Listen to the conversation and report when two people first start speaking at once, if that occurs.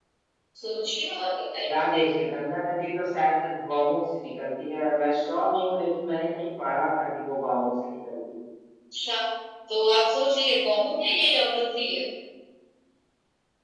none

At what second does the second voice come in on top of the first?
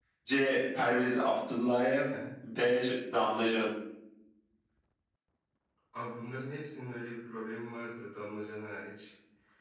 none

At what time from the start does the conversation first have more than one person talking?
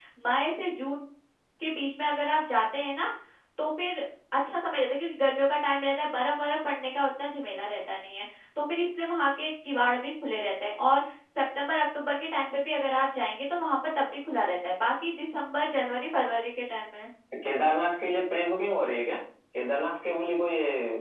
none

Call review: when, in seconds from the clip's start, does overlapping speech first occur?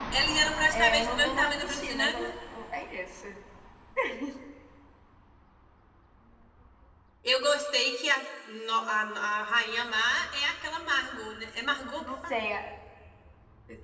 0.7 s

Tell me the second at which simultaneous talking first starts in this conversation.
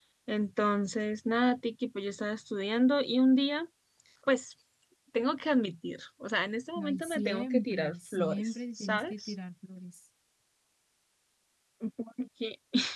6.8 s

